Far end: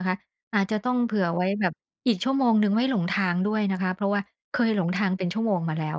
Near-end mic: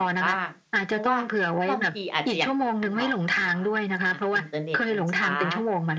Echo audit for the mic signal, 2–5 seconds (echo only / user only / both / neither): both